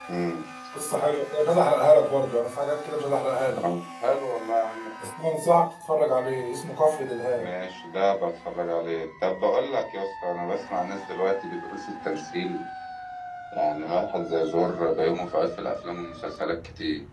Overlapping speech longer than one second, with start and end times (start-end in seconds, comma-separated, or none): none